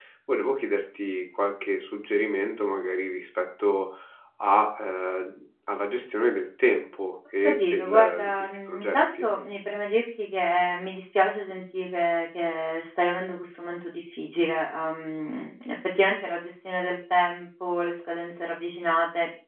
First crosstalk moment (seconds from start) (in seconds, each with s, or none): 7.4 s